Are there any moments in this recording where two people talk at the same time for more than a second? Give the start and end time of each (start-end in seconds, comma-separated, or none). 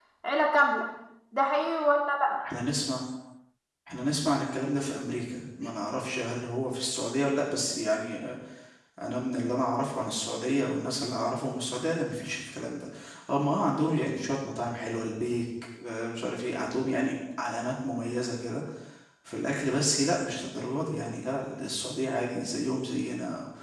none